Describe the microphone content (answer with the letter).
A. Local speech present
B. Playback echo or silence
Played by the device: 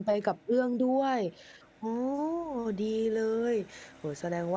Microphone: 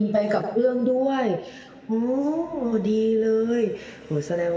B